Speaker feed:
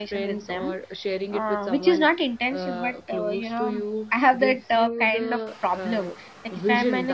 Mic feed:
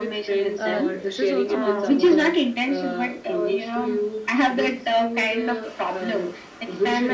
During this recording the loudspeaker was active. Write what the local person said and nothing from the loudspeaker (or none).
uh, this is also nonsense, but